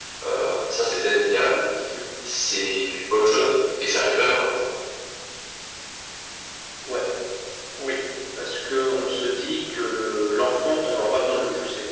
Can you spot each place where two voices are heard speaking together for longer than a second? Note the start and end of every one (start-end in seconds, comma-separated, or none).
none